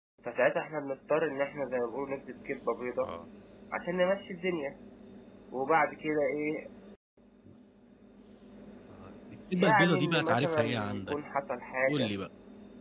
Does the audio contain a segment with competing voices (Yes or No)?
Yes